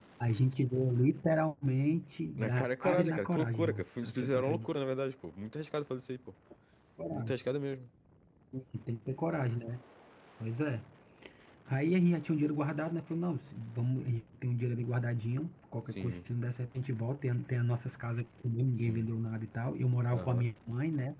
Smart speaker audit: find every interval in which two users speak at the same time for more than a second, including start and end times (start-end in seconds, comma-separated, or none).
2.4-4.7